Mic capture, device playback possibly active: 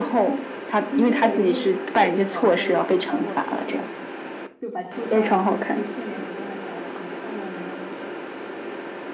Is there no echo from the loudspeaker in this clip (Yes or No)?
No